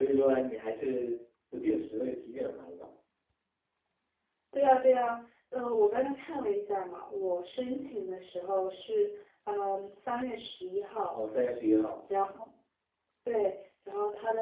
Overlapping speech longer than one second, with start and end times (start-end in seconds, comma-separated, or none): none